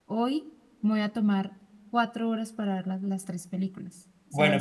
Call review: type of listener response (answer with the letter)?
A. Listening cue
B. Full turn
B